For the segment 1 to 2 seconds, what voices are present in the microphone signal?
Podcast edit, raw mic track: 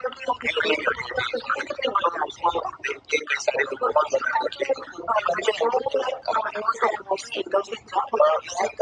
echo only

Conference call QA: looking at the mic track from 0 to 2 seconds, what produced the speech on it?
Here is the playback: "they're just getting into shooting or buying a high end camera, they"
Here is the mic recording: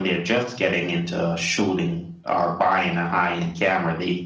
echo only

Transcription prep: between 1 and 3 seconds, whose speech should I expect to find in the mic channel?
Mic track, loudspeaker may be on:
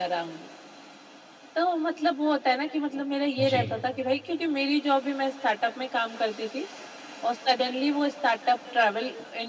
echo only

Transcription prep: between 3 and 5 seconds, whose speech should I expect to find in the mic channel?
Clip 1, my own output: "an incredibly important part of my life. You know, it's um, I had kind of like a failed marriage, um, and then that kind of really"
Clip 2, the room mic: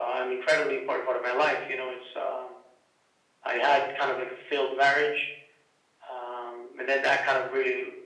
echo only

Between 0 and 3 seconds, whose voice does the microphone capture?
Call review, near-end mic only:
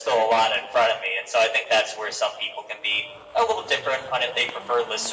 echo only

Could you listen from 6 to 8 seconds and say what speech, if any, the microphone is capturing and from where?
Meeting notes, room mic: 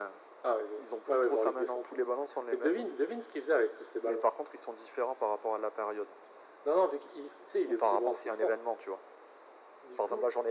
echo only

